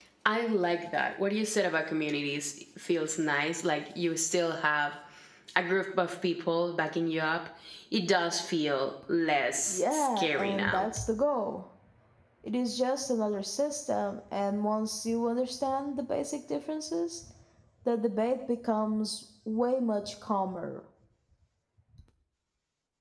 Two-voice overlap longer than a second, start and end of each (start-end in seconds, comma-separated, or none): 9.7-10.9